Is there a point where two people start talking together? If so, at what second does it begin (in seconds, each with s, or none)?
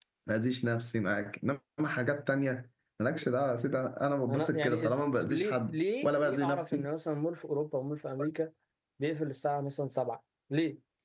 4.3 s